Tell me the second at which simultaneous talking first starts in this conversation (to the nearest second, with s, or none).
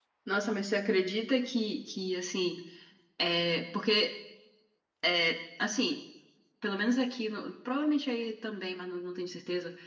none